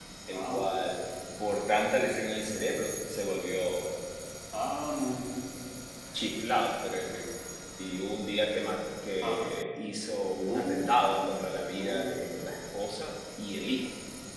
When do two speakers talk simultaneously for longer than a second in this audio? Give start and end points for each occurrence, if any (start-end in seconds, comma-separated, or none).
none